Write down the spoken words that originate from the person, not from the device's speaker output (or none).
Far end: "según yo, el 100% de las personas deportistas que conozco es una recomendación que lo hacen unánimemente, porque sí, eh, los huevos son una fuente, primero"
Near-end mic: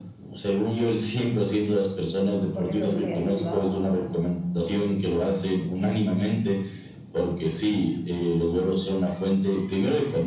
Porque es lo que estoy haciendo ahora.